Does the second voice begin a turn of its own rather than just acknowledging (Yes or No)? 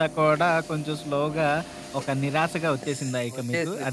Yes